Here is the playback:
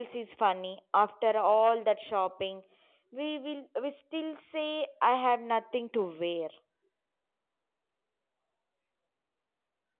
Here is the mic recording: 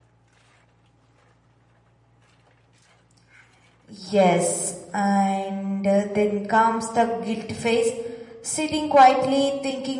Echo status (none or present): none